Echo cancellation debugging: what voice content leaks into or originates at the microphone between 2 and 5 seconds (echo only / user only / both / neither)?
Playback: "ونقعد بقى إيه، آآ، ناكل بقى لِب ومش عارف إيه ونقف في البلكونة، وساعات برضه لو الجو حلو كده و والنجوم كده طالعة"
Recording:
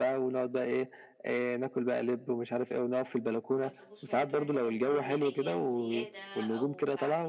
both